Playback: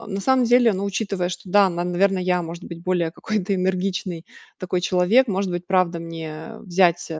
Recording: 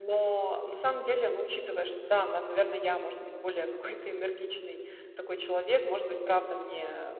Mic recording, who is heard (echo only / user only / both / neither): echo only